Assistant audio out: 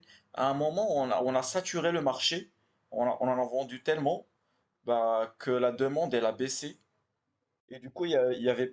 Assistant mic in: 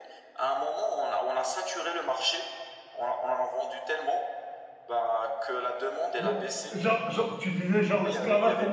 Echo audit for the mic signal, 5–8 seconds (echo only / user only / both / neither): both